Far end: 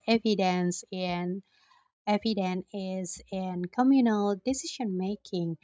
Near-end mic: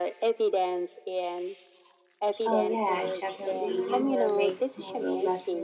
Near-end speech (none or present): present